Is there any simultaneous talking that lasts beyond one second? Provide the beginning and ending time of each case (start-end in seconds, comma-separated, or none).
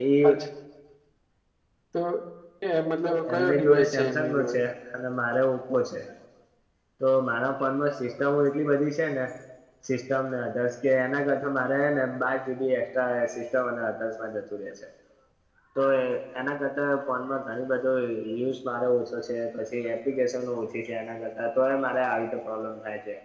3.3-4.6